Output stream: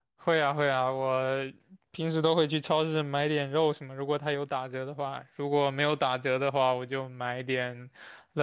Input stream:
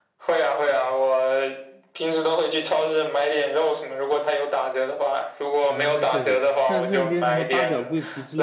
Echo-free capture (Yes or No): No